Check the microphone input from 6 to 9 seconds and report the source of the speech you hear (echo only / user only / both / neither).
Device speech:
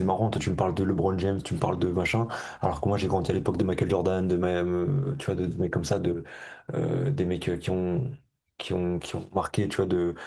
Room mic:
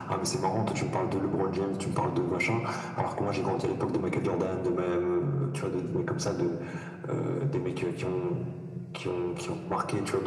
echo only